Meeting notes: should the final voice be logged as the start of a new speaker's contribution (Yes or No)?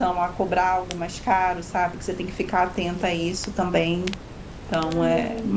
Yes